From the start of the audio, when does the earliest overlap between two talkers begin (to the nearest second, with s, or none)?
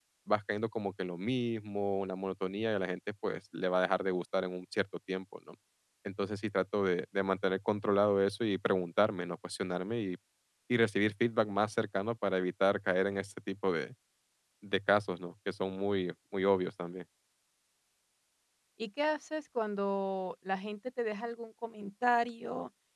none